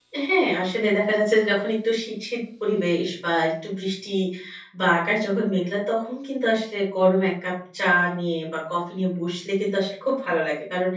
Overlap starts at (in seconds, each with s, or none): none